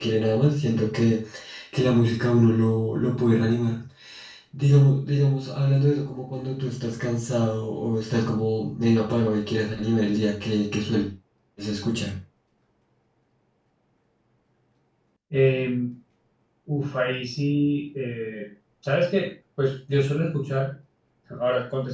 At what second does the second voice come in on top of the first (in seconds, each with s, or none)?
none